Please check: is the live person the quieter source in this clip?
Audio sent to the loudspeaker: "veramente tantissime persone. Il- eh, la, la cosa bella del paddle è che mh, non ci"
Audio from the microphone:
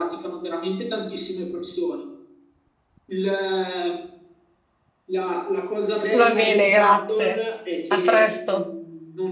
No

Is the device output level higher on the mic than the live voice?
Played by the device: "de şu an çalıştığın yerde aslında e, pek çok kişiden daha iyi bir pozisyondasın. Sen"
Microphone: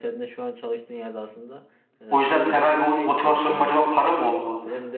No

